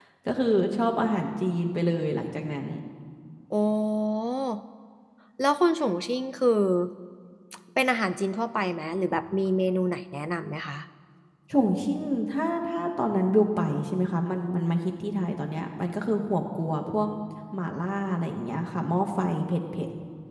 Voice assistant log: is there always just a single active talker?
Yes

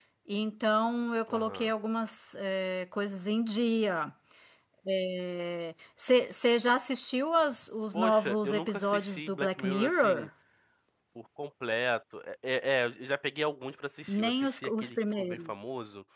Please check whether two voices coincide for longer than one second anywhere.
Yes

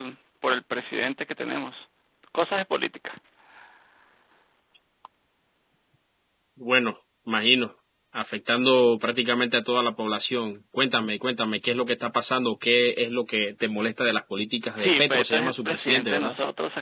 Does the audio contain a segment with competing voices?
Yes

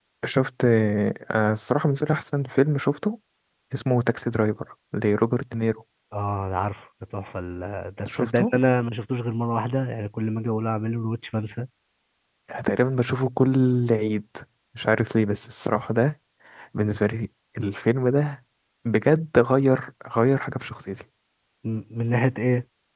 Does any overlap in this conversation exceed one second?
No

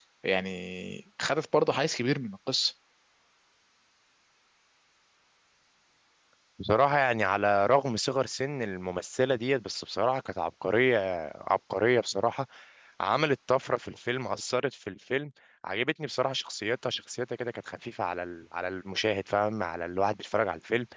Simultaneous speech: No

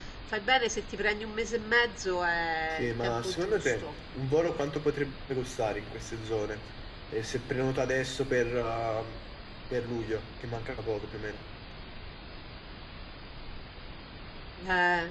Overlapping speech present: Yes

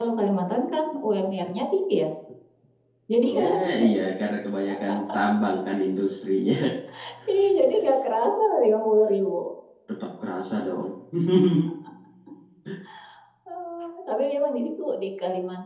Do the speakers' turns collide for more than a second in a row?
No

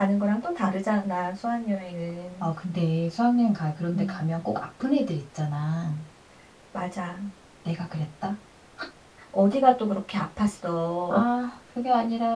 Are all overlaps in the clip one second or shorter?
Yes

